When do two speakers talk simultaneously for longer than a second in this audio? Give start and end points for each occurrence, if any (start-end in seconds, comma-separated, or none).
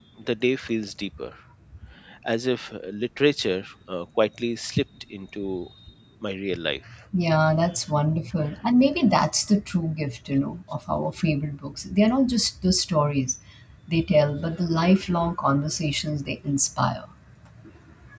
none